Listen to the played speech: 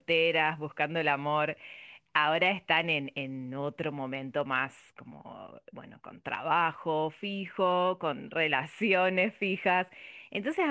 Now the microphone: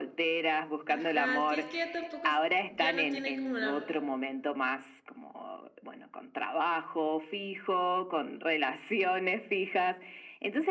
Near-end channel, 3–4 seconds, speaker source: both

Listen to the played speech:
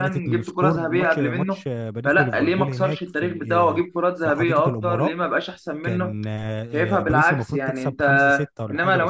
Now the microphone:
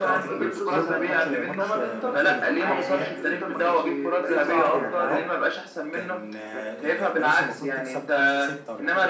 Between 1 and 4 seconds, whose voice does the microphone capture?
both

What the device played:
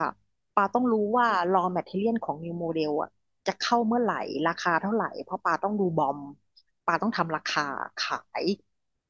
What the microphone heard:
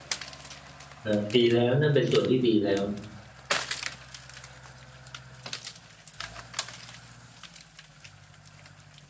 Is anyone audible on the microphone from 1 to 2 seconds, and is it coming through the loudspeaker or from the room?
user only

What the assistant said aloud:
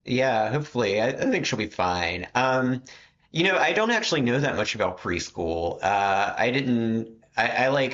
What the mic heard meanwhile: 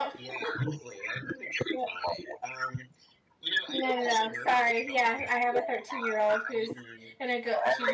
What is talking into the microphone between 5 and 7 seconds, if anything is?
both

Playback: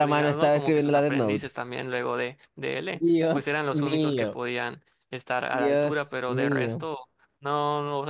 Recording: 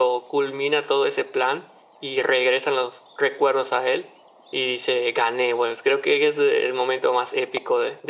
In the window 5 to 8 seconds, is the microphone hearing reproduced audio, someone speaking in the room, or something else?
user only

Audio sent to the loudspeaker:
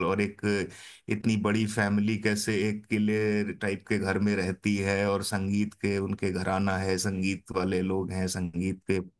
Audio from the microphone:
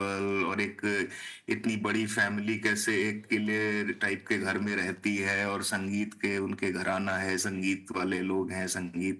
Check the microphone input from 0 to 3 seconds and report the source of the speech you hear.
echo only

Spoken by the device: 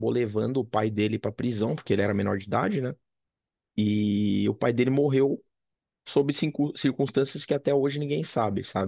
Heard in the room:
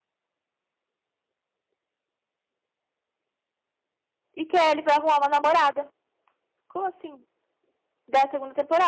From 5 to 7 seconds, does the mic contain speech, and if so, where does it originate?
user only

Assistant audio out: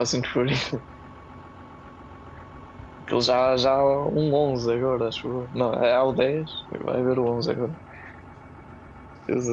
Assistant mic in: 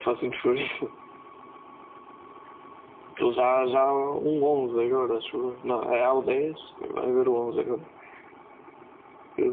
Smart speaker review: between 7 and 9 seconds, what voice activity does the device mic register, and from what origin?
echo only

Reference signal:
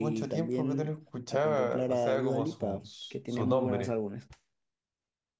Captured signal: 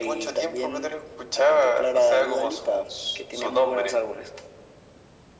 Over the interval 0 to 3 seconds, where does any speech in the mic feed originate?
echo only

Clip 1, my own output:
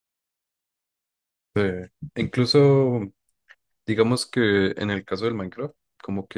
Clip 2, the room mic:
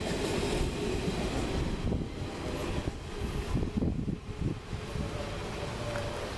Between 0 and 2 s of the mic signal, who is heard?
neither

